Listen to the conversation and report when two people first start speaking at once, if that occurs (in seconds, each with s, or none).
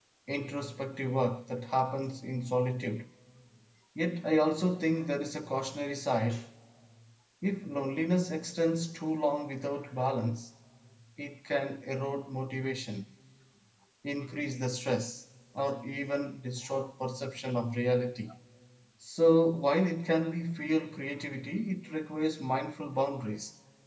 none